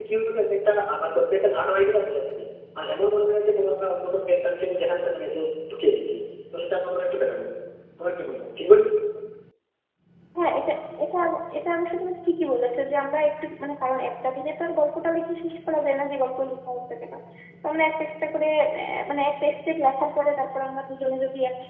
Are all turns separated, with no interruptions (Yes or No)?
Yes